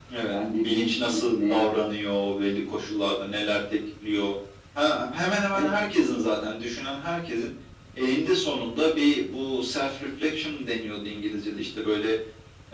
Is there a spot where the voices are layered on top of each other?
Yes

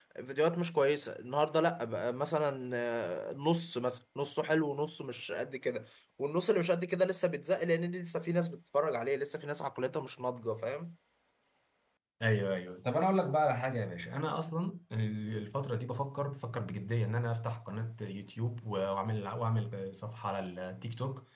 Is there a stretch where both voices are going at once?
No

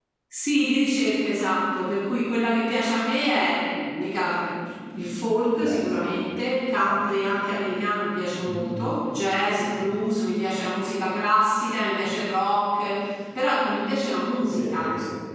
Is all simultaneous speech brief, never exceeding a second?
Yes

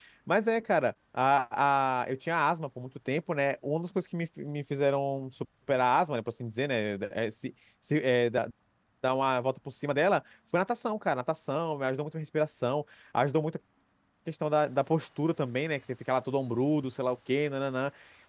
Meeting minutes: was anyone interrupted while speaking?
No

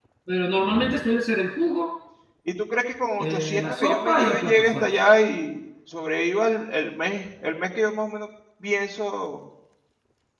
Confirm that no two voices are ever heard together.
No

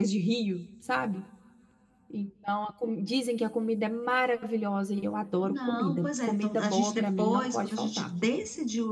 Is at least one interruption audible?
Yes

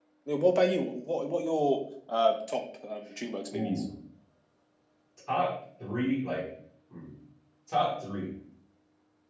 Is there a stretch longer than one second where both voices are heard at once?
No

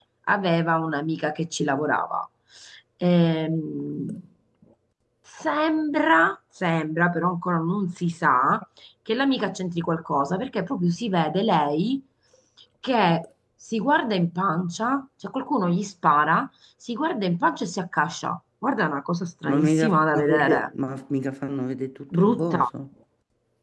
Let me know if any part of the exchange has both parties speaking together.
Yes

